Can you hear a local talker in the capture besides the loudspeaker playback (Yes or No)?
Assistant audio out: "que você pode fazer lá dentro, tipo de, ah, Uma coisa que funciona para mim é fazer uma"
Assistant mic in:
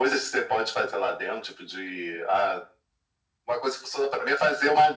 No